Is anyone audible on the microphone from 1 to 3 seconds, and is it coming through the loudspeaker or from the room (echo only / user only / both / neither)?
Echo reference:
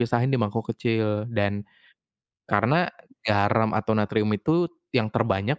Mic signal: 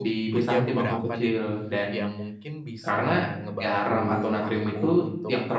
both